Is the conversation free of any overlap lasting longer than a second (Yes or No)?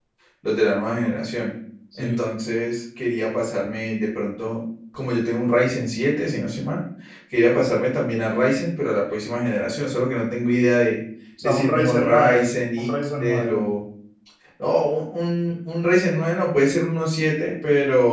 No